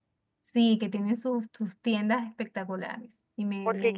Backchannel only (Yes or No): No